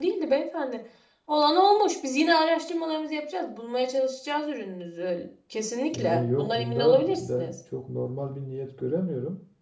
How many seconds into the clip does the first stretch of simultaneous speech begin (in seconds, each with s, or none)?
5.9 s